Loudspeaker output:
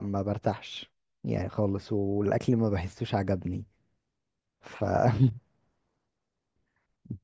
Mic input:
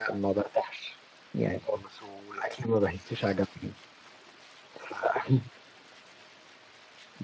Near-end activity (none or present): none